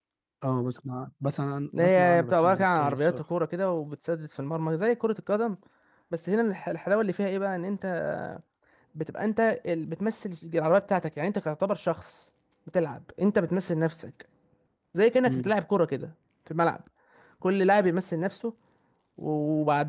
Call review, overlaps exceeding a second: present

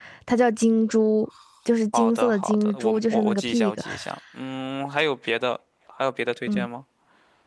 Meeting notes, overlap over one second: present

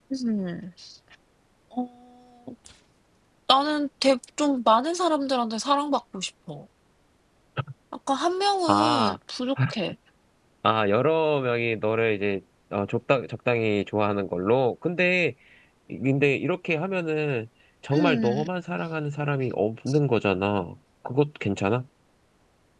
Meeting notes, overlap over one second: none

